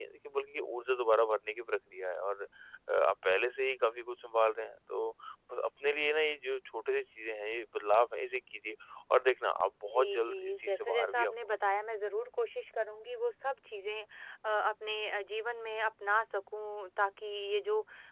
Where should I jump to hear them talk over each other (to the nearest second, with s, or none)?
10 s